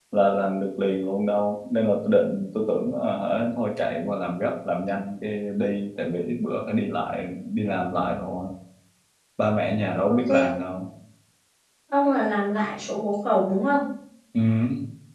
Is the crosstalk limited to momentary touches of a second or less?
Yes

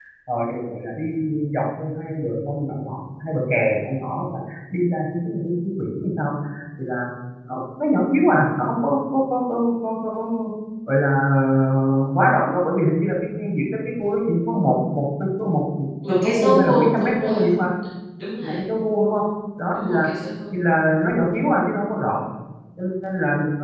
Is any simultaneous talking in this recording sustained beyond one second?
Yes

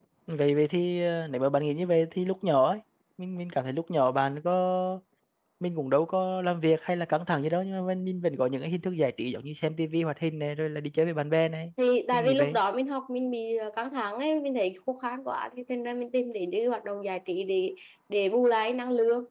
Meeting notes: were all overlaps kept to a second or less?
Yes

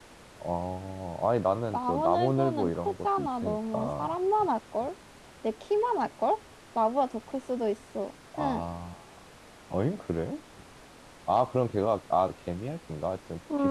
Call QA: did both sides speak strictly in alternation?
No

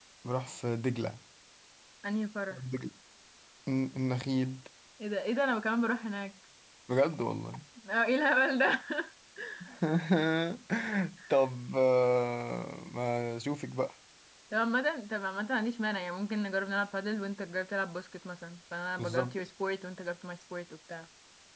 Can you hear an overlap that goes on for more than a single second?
No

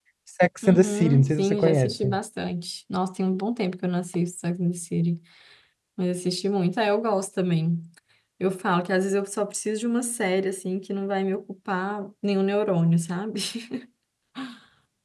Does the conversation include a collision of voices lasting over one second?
Yes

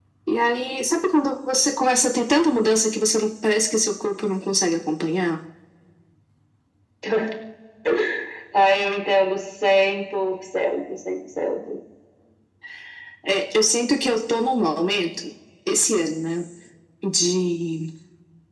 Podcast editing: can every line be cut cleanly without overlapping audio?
Yes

